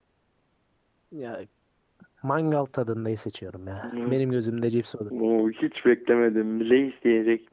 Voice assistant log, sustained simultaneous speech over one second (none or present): none